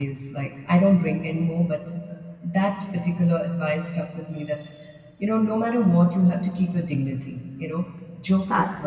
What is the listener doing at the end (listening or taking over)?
listening